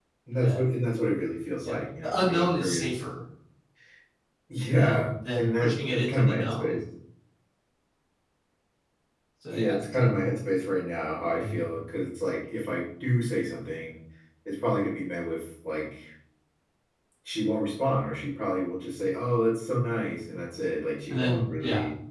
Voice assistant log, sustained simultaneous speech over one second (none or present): present